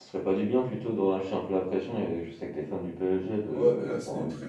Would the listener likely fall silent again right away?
No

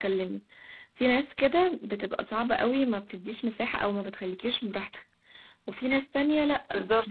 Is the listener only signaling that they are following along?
Yes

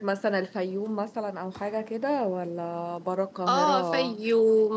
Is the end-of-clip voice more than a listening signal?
Yes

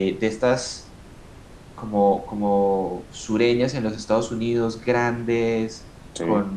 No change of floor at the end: Yes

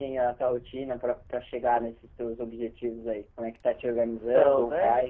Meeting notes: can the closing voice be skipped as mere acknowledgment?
Yes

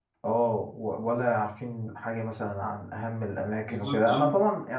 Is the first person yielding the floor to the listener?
No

